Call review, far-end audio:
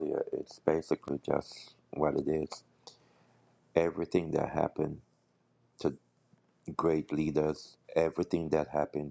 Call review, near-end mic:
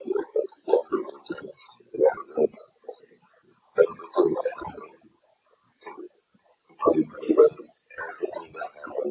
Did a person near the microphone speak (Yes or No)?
No